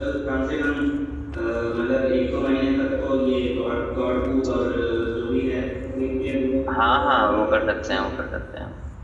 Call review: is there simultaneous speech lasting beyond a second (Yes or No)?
Yes